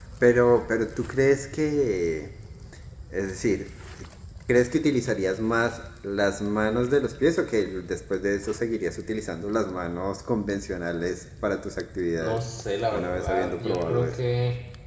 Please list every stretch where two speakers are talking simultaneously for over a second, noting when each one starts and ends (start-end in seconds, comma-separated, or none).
12.9-14.2